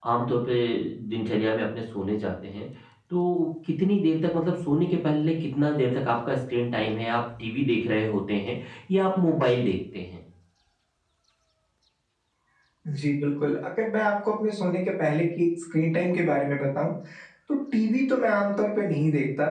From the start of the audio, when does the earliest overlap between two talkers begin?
none

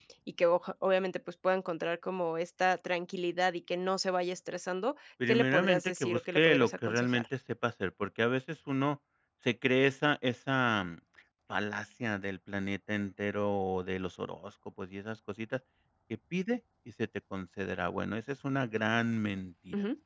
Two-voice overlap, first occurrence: 5 s

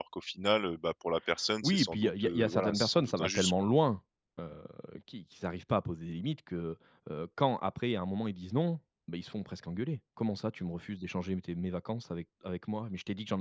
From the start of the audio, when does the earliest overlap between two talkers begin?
2 s

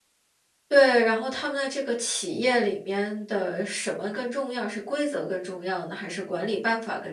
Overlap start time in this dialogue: none

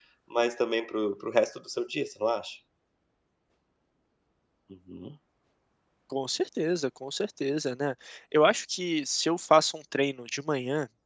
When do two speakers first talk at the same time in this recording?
none

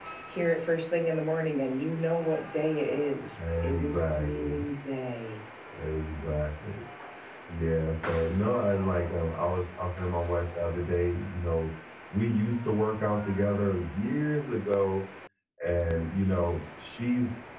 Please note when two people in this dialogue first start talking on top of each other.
3 s

